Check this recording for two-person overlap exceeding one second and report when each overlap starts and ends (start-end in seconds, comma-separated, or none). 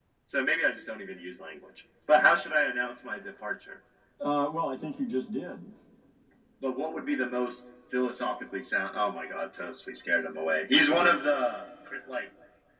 none